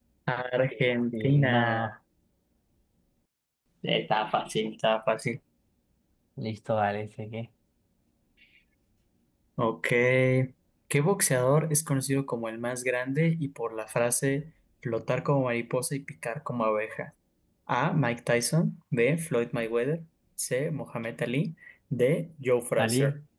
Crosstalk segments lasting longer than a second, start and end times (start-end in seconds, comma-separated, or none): 0.7-1.9